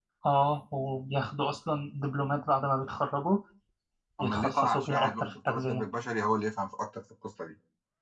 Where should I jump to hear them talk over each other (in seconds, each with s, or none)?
4.2 s